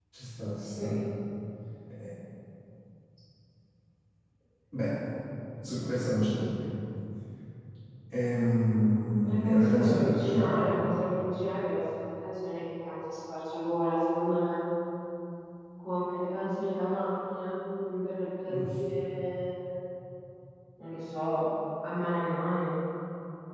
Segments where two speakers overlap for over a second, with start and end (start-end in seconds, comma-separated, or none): 9.2-10.6